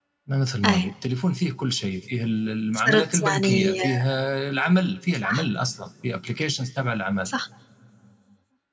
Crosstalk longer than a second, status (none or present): present